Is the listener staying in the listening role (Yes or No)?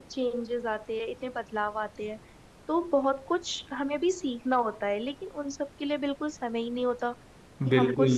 Yes